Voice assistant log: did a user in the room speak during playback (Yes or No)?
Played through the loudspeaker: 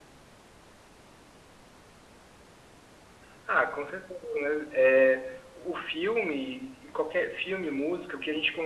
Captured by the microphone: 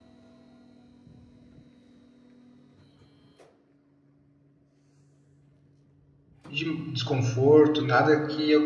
Yes